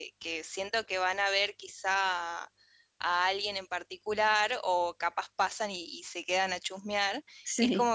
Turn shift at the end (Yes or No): No